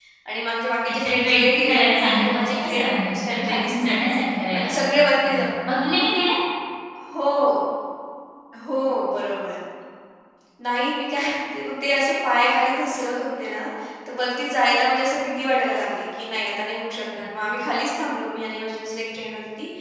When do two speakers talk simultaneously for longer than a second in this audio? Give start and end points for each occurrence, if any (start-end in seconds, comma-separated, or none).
1.0-4.0